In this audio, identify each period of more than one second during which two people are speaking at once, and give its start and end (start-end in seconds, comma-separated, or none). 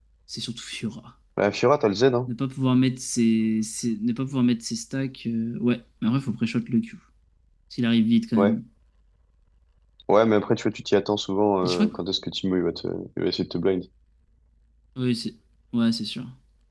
none